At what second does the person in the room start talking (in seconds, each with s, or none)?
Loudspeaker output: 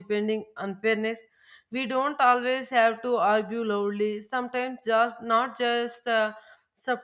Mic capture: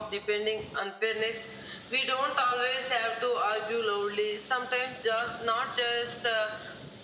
none